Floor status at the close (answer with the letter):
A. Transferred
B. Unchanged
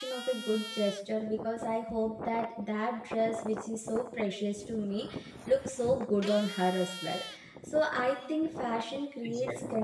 B